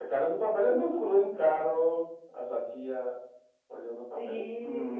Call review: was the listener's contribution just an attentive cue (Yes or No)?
No